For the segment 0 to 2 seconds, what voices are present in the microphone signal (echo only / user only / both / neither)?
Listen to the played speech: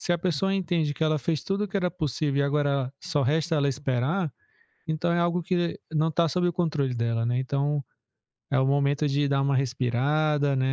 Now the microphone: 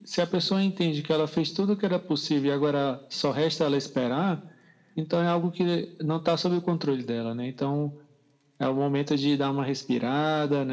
echo only